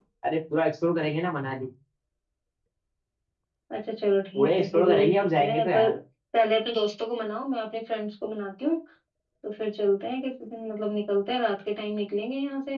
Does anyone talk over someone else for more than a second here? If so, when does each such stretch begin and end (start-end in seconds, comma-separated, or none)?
4.3-5.9